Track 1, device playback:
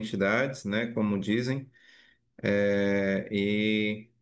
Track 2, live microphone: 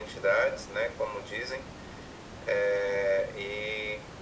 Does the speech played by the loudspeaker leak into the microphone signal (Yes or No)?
Yes